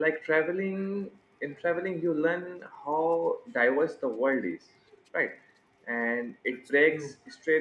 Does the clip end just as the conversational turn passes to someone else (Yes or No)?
No